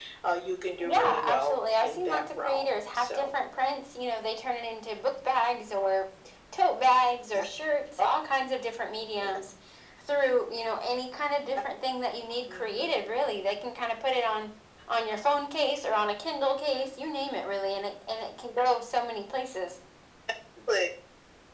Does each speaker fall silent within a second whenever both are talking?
No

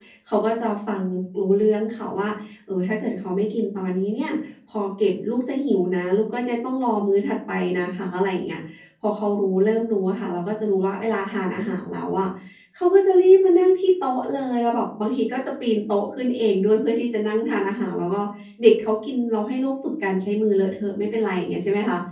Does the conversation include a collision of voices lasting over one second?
No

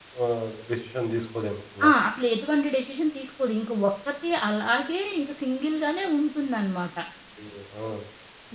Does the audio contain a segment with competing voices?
No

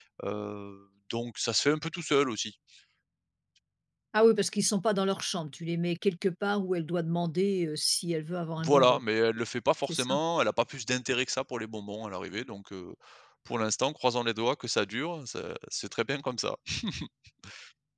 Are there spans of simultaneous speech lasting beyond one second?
No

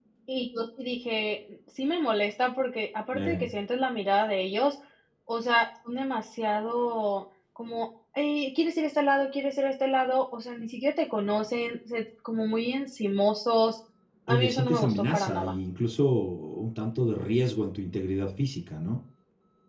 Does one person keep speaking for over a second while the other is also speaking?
Yes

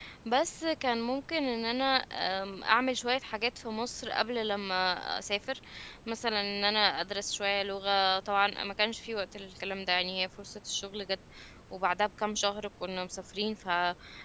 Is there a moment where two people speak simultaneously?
No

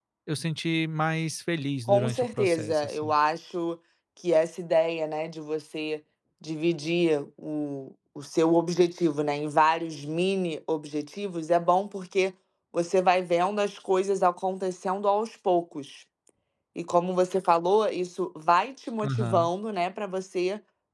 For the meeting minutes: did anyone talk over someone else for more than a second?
Yes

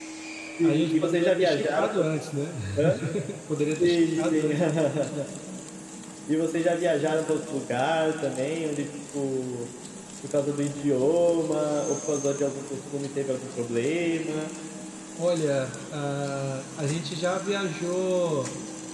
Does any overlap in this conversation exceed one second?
Yes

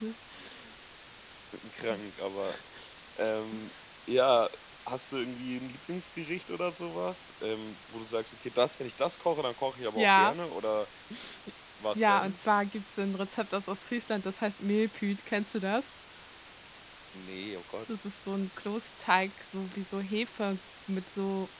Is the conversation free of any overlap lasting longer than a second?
Yes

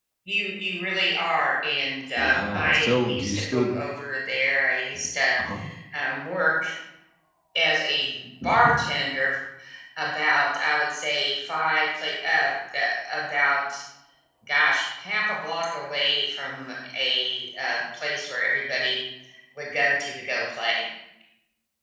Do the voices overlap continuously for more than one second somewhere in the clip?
Yes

